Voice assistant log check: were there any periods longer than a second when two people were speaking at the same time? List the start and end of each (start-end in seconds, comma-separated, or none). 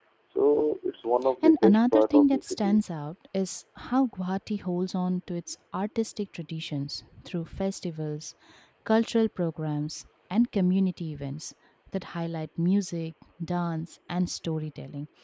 1.4-2.8